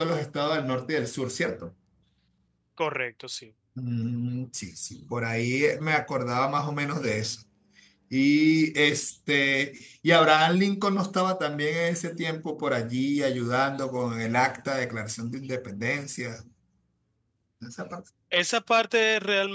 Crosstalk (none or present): none